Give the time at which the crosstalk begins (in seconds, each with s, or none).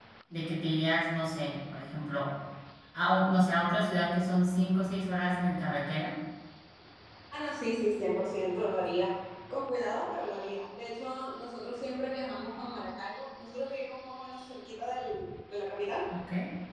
none